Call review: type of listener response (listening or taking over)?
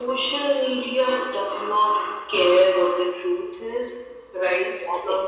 listening